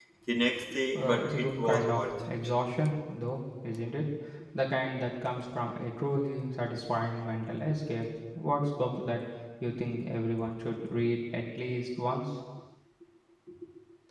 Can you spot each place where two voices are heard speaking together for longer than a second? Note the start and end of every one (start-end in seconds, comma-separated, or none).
0.9-2.3